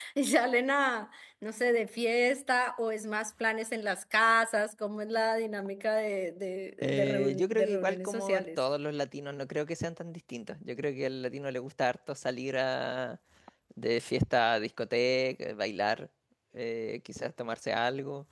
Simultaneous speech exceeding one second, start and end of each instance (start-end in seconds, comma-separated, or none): 6.8-8.6